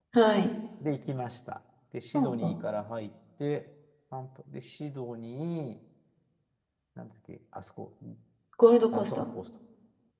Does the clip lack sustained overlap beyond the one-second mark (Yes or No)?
Yes